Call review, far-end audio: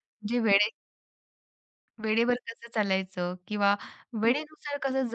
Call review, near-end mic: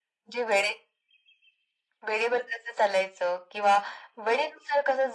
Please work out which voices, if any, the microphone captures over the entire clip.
echo only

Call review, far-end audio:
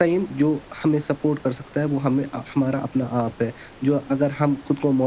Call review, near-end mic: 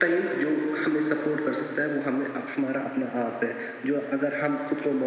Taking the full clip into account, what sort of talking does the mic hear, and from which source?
echo only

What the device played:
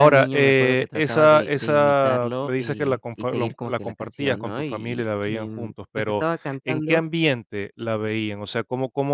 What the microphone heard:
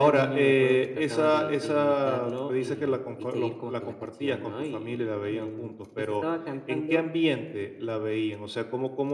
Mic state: echo only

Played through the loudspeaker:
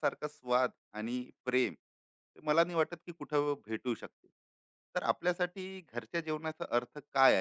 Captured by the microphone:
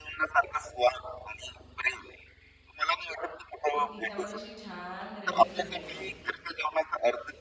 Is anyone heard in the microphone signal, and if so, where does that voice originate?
both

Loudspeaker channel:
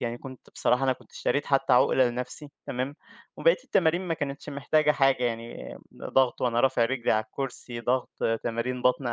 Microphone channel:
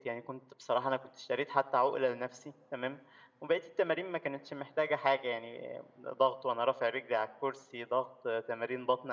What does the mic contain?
echo only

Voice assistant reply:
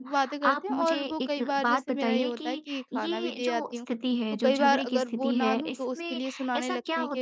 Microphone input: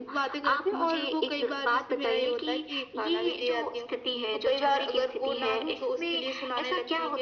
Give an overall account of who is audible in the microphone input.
echo only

